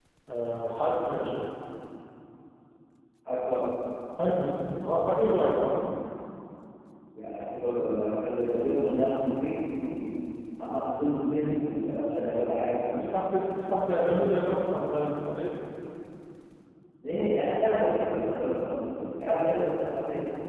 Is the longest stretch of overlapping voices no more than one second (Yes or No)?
Yes